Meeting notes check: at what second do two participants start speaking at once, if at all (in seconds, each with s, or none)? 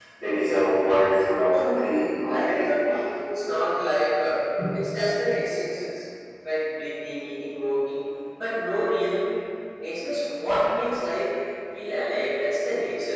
1.5 s